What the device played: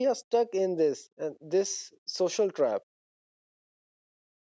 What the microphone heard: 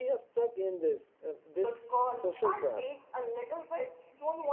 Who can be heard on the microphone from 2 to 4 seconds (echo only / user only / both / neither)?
both